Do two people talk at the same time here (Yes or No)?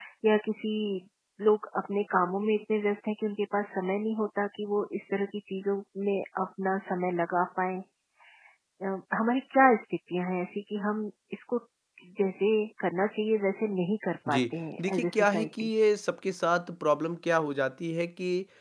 Yes